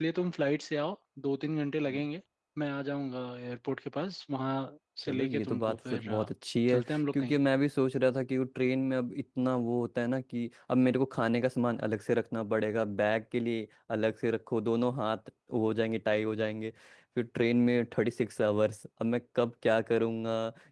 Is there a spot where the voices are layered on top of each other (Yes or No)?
Yes